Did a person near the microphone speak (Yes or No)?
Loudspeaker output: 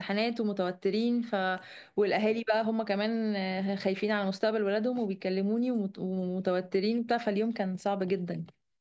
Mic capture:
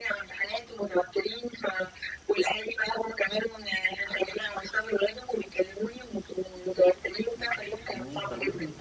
Yes